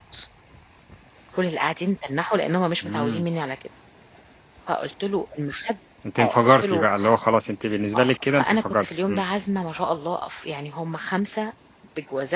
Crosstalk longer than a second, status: present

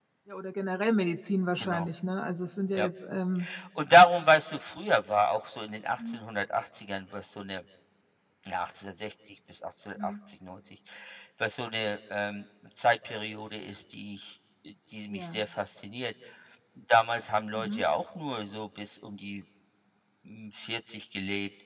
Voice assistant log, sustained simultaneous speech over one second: none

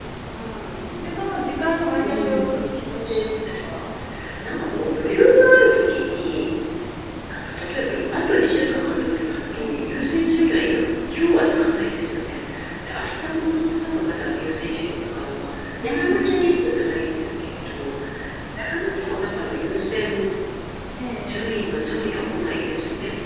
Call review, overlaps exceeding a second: present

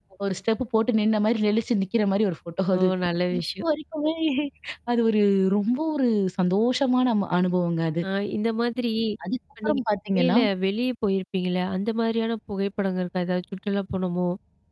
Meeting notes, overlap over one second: none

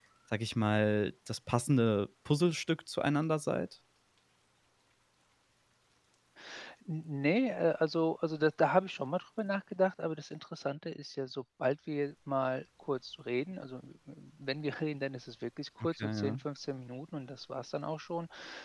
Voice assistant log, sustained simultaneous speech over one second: none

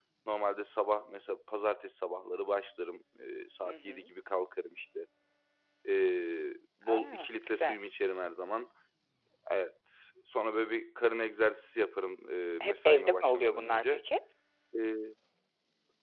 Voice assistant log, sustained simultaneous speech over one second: present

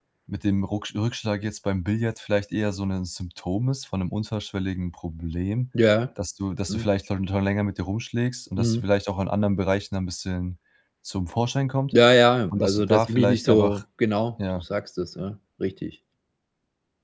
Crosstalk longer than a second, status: present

